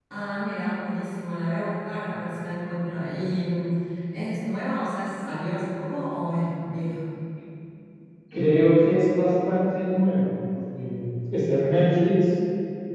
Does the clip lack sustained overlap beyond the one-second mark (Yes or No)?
Yes